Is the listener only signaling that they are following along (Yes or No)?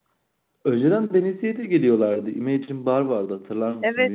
No